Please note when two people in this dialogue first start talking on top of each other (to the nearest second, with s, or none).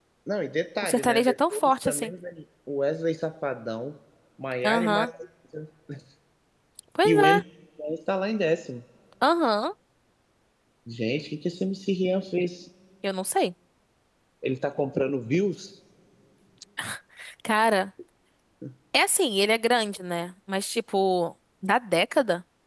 1 s